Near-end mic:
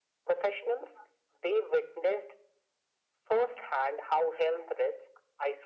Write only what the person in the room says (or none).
none